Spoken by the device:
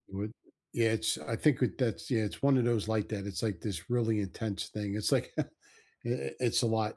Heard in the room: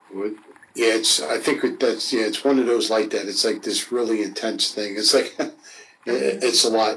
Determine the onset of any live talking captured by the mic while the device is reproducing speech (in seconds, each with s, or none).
6.1 s